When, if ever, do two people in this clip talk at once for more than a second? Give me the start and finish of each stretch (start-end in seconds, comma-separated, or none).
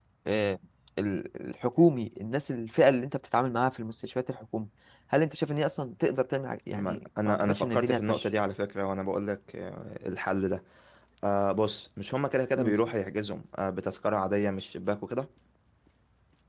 6.7-8.2